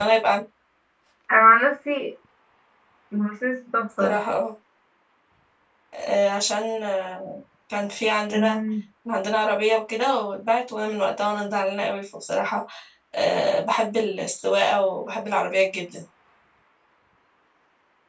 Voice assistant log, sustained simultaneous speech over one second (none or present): none